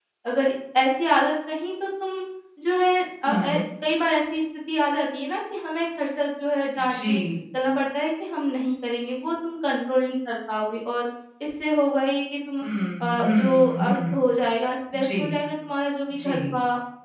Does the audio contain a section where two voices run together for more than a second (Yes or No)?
Yes